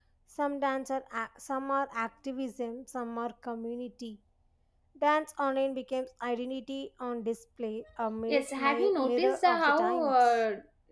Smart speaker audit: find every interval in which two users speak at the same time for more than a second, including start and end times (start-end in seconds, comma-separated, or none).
8.3-10.3